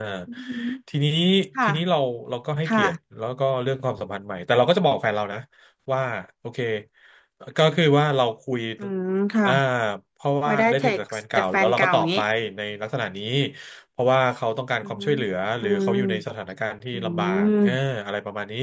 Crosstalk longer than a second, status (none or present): present